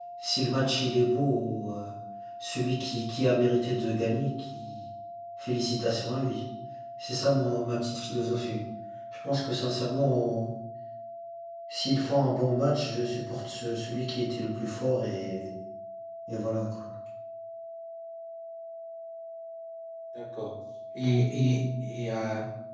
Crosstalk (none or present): none